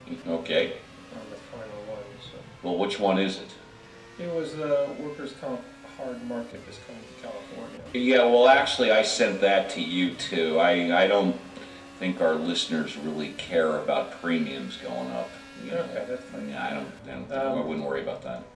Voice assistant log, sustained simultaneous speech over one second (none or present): none